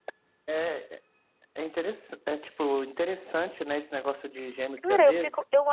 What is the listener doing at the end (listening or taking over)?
taking over